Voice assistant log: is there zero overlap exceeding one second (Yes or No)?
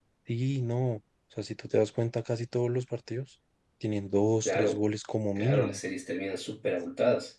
Yes